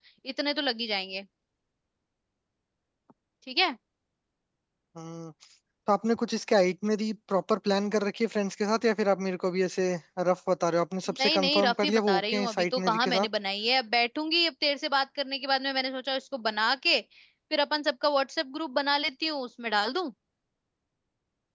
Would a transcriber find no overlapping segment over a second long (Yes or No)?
No